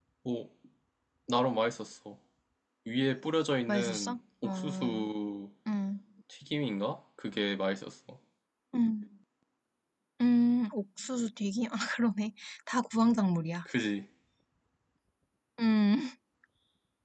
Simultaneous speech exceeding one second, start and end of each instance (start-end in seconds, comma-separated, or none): 3.7-5.1